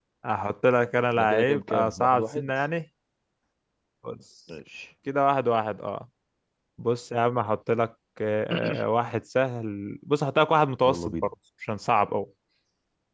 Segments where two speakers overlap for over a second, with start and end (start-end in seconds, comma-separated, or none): 1.2-2.5